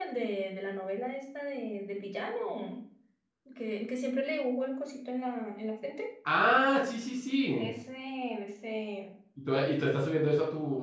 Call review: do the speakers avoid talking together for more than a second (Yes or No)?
Yes